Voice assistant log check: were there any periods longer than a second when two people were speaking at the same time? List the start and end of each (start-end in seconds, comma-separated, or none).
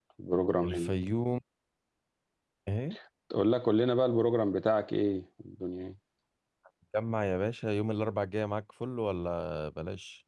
none